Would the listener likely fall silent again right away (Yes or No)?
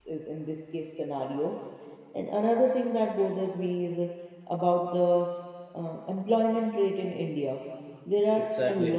Yes